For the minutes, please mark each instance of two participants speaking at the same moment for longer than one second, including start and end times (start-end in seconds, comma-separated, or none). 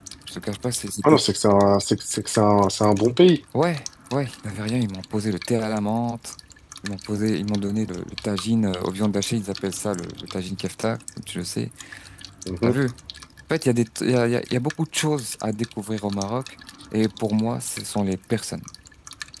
none